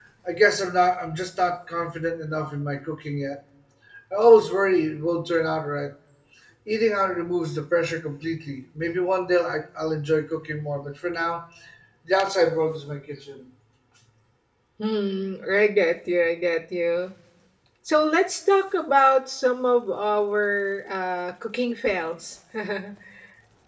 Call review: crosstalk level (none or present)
none